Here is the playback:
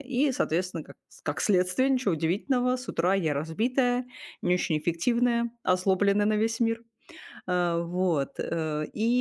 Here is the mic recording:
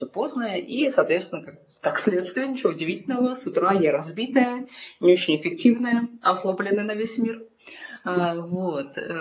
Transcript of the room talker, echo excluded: none

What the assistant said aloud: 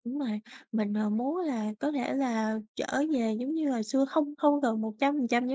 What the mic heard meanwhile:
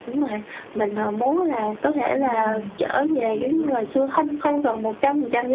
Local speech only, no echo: ừm, mình hiểu.

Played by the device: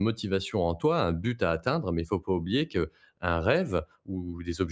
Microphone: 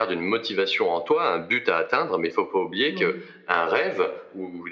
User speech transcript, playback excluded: Oui.

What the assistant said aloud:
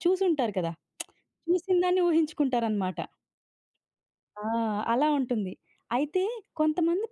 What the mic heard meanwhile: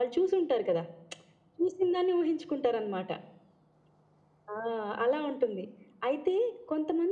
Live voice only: none

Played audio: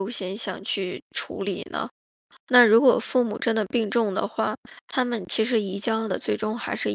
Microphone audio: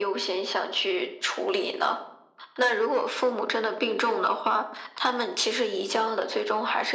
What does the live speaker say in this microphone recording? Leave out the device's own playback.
none

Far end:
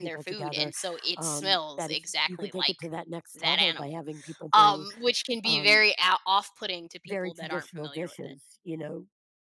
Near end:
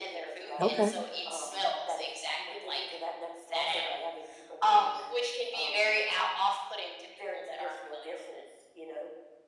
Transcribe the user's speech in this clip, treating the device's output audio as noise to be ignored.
Okay,

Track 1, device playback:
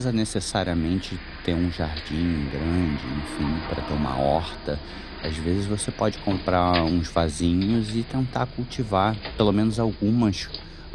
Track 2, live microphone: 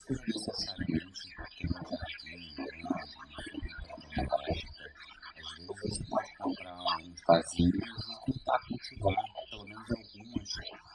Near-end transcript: none

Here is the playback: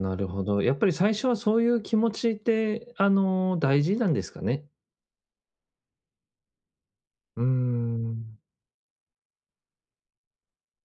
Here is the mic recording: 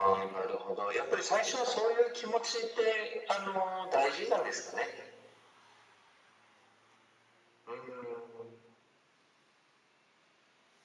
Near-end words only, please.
none

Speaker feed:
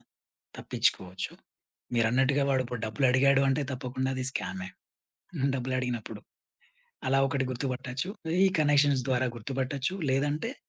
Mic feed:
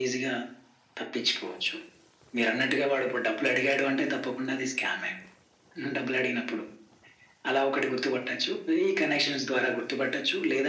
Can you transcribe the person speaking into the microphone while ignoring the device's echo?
none

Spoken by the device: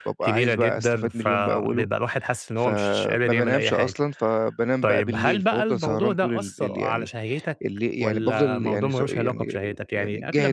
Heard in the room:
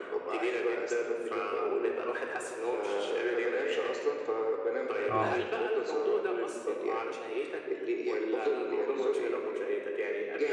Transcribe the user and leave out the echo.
آه،

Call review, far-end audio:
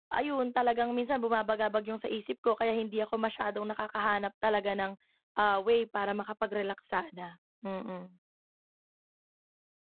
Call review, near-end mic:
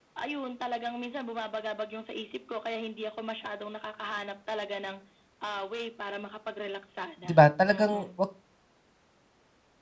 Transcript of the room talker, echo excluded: 'di ba? Talagang 'wag

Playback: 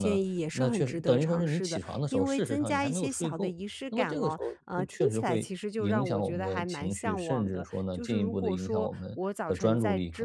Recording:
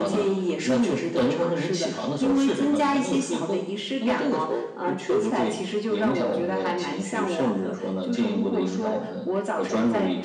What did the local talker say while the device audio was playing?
none

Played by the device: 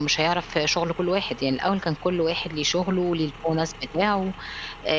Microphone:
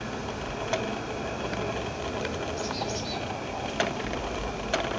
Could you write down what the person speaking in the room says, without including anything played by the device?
none

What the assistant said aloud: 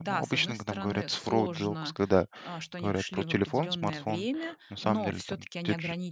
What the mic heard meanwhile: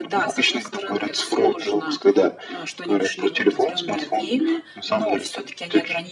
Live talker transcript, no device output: none

